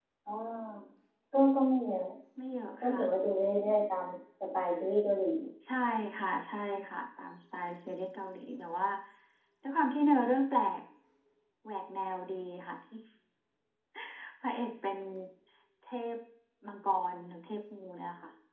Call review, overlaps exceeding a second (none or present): none